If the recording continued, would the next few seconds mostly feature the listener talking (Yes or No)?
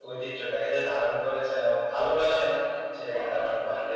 No